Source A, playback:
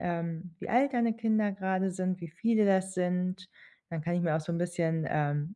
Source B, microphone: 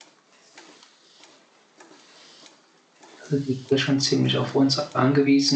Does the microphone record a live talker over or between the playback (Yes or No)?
Yes